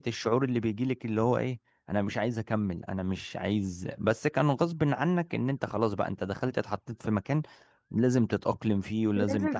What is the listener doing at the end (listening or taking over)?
taking over